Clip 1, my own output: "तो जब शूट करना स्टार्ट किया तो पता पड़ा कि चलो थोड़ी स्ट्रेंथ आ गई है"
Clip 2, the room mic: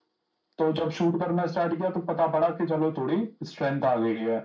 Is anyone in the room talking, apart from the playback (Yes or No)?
No